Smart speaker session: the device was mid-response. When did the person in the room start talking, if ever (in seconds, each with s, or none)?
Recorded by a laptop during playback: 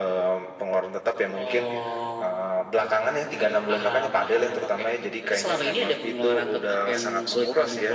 none